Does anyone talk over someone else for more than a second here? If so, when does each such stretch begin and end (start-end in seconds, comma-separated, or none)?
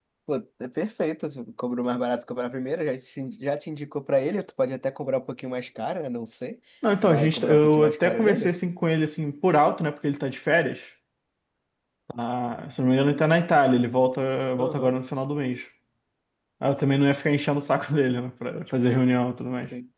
7.0-8.5